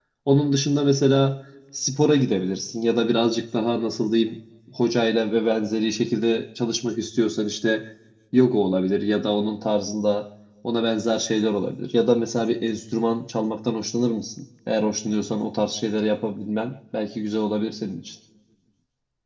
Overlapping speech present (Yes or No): No